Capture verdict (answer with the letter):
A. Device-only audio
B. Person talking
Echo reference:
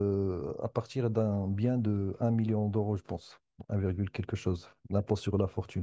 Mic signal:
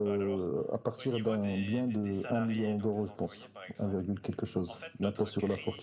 B